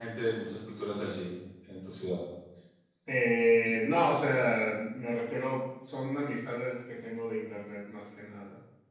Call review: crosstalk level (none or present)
none